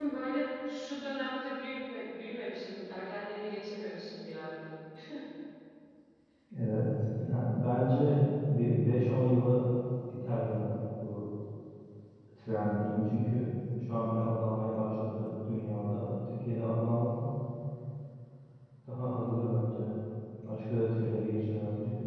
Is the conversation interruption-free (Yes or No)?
Yes